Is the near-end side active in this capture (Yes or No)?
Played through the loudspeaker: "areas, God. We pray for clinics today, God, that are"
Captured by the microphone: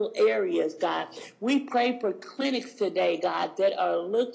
No